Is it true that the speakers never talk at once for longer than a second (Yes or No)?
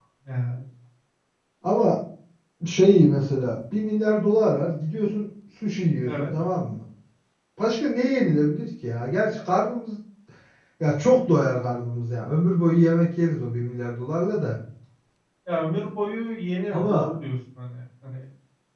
Yes